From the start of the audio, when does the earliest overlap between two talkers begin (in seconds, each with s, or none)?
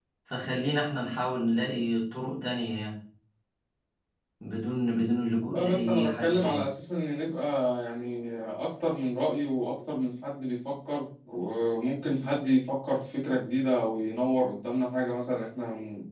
5.4 s